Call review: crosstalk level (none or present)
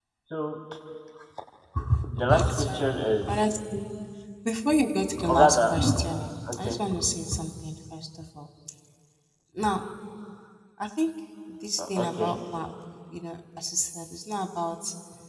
present